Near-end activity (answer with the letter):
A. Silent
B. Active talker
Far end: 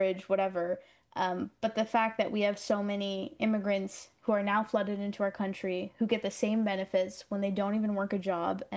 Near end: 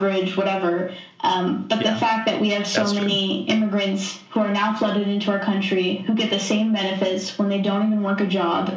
B